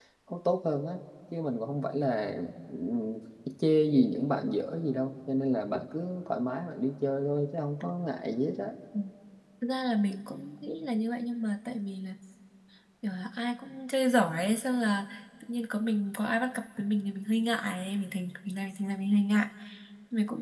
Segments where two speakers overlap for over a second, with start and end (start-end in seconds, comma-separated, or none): none